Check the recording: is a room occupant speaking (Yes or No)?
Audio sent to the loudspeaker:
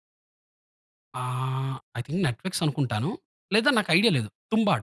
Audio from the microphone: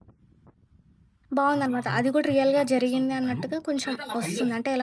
Yes